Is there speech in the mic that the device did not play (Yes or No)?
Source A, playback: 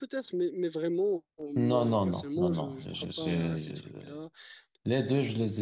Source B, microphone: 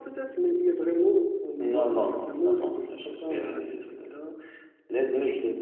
No